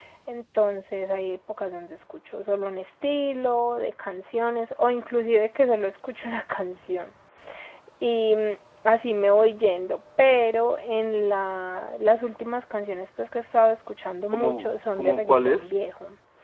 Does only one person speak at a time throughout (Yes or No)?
No